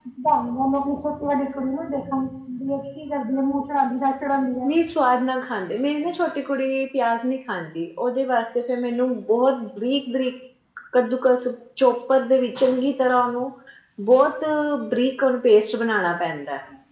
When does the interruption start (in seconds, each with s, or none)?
none